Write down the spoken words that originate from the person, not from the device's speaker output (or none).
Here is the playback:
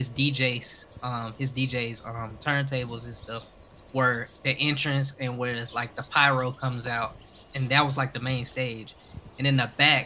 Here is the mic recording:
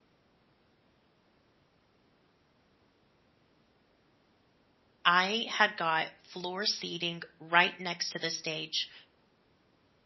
I had got floor seating right next to the stage